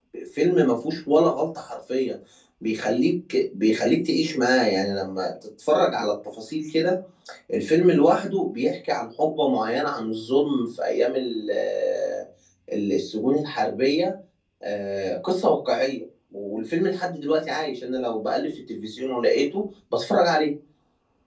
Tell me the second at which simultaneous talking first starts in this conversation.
none

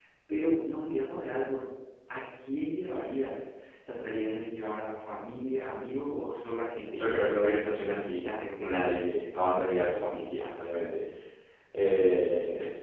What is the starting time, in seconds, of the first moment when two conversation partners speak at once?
7.0 s

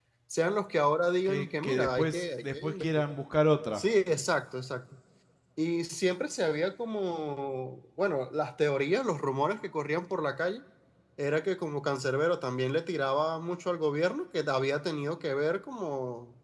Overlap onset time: 1.2 s

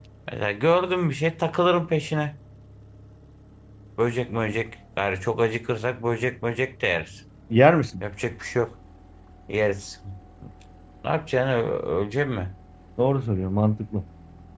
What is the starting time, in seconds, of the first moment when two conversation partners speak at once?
none

